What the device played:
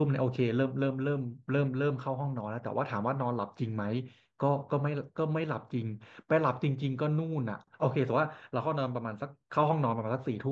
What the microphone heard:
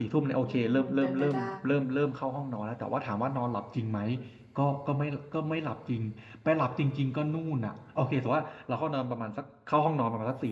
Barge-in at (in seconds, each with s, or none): 0.4 s